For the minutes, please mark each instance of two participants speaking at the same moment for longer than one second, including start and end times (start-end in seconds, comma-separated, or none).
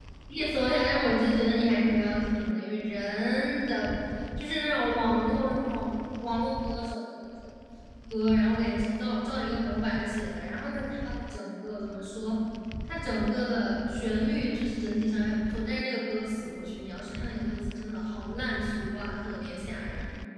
none